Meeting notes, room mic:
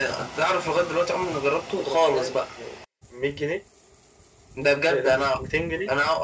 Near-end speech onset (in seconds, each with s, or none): none